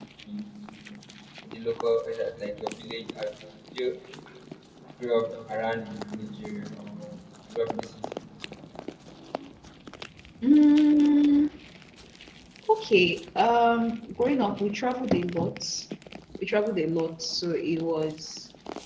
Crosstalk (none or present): none